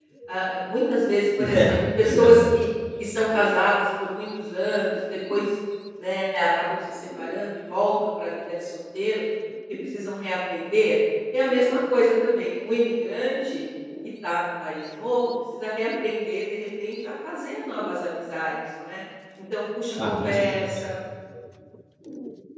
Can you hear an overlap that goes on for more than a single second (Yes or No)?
Yes